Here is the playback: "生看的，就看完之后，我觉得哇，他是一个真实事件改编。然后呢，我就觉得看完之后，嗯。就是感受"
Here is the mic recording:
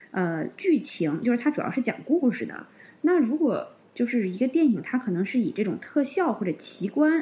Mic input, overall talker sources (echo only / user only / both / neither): user only